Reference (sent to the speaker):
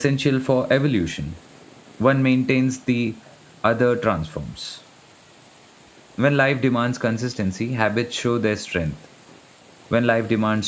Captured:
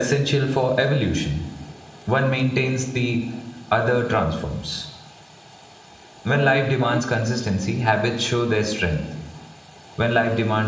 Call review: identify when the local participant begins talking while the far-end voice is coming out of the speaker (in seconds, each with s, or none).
6.3 s